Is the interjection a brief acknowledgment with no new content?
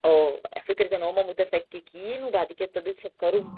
Yes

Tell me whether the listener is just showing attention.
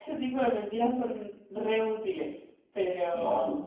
Yes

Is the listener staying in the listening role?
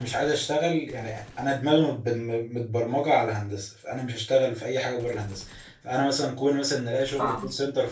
Yes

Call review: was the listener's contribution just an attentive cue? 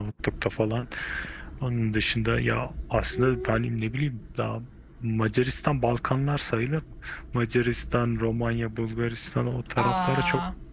Yes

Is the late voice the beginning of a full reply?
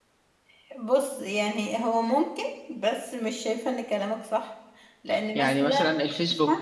Yes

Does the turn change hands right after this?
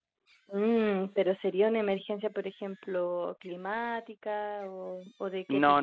Yes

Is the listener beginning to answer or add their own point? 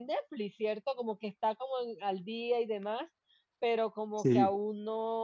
No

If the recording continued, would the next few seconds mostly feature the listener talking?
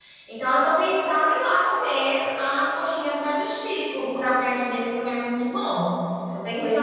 Yes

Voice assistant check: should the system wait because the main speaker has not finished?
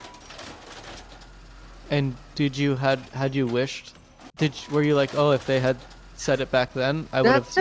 No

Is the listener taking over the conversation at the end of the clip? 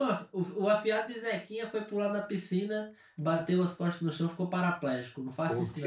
Yes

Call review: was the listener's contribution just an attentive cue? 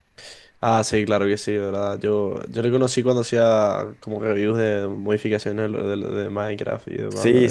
No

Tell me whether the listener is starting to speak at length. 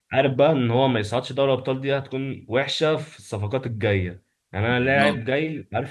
No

